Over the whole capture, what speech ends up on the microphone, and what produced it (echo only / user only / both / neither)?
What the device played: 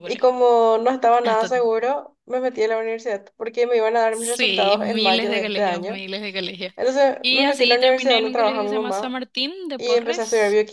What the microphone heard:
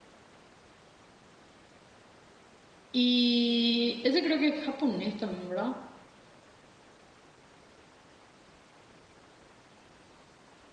user only